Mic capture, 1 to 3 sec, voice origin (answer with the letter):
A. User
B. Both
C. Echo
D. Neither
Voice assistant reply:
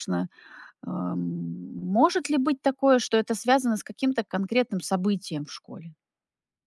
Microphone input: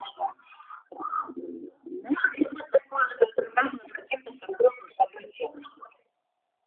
C